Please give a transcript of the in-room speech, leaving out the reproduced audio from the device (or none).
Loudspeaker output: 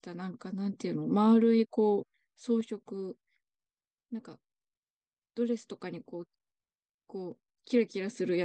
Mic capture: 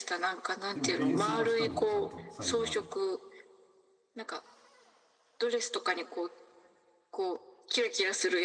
でも演奏はしたんだね、ちゃんと。最後まで。